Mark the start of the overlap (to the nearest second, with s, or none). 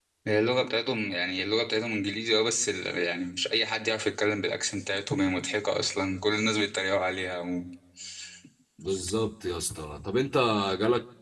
none